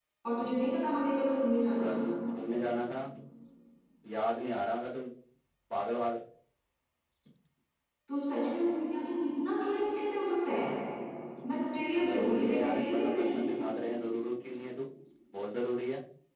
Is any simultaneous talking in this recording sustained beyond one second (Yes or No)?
Yes